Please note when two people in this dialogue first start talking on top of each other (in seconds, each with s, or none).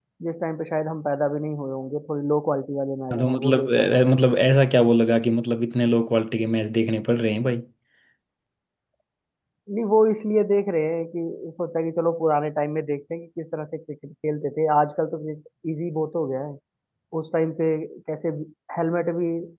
3.1 s